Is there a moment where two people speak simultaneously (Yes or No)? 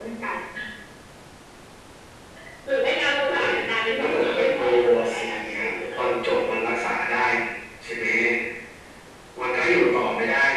Yes